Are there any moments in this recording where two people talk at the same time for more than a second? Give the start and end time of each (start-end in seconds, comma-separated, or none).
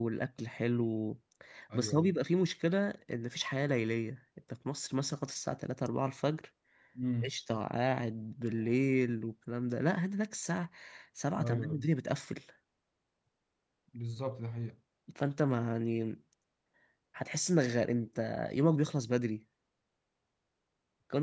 none